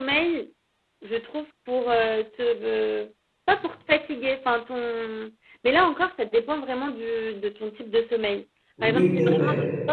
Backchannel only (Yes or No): No